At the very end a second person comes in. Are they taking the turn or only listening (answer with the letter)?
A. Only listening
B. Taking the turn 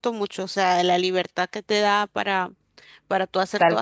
B